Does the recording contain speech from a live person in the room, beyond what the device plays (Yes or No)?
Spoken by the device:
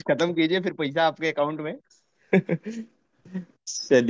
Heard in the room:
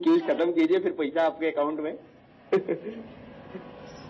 No